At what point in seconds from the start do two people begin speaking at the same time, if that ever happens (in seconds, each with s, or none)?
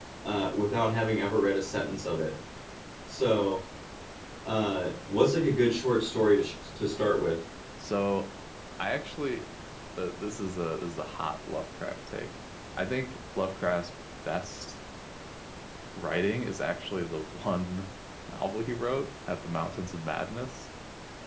none